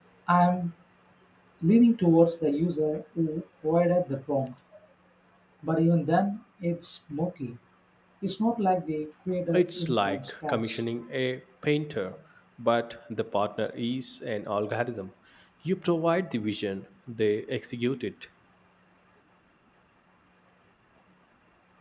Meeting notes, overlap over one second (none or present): present